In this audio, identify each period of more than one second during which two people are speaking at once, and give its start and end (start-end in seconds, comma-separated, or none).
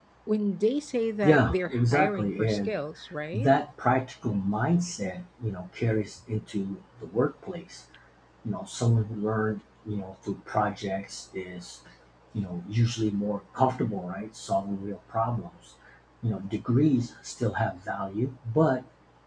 1.2-2.8